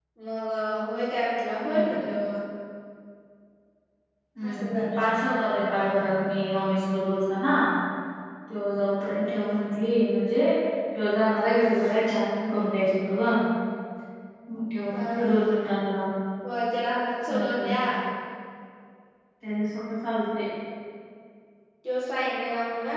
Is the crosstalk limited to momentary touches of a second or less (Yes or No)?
Yes